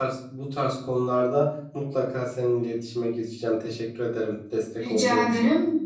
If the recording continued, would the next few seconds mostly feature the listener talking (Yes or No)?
Yes